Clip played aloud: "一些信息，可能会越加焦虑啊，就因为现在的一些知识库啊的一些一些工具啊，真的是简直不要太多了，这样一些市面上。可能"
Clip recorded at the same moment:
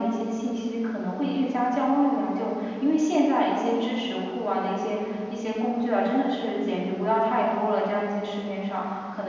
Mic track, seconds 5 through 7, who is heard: echo only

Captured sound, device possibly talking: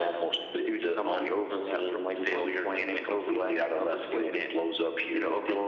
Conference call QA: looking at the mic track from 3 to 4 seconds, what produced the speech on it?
echo only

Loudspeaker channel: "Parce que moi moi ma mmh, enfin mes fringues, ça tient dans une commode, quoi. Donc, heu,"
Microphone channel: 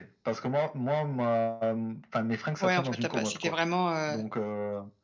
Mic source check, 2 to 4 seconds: both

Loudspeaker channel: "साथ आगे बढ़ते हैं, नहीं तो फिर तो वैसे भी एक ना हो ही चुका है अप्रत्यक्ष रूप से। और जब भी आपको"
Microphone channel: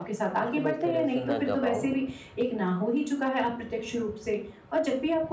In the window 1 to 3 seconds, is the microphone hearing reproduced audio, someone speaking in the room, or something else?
both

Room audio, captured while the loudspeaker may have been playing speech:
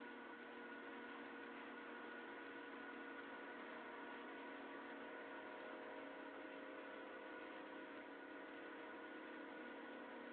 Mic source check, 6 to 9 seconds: neither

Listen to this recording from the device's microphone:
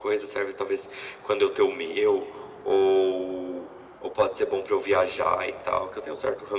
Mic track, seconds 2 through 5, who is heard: echo only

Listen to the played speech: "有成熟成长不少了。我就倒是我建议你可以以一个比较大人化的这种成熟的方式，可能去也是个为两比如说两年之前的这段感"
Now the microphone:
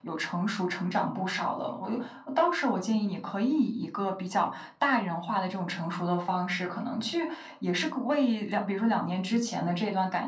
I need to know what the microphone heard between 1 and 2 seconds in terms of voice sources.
echo only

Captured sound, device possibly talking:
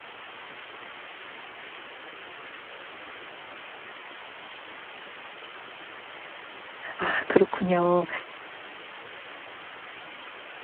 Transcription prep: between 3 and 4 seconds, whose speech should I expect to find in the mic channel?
neither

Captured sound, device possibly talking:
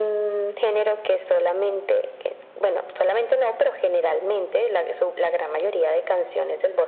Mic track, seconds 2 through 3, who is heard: echo only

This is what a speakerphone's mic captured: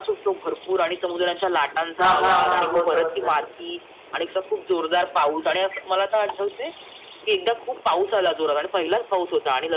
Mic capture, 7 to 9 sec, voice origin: echo only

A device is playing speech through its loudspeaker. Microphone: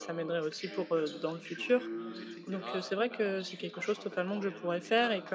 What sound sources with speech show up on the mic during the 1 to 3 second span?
both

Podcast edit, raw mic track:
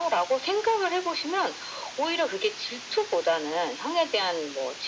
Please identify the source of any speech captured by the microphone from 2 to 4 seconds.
echo only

